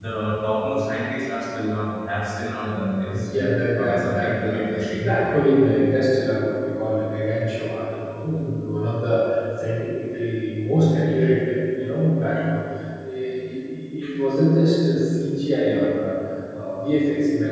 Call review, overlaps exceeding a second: present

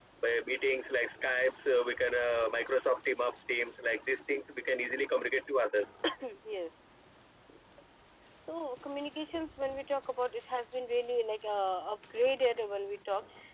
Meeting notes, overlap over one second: none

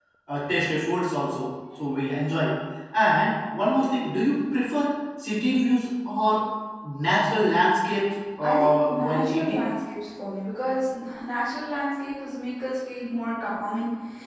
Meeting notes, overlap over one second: present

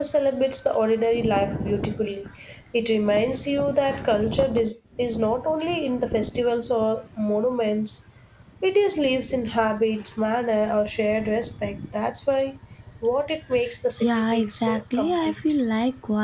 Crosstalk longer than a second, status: present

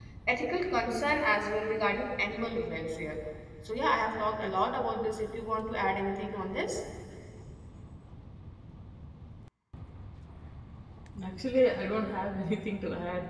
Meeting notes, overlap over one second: none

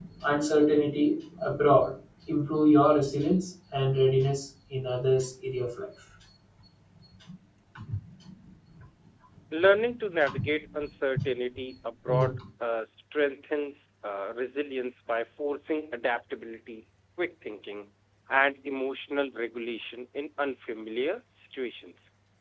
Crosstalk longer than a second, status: none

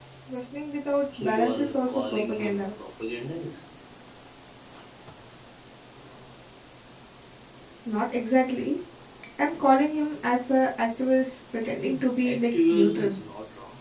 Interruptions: present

